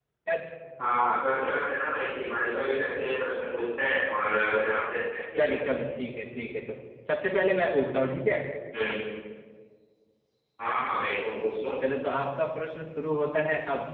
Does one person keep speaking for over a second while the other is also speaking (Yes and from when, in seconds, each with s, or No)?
No